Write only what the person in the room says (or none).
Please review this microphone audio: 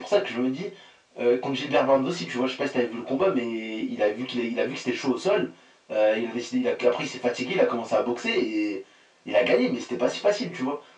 none